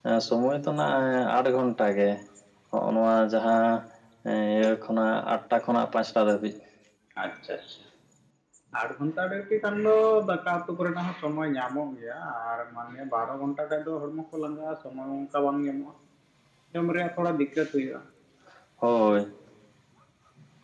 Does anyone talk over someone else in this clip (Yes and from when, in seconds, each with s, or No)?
No